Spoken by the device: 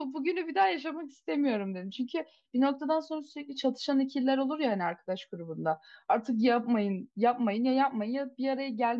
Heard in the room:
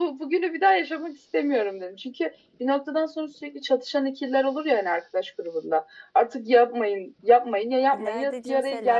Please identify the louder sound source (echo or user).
echo